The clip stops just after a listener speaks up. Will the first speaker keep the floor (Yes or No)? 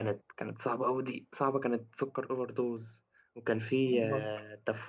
Yes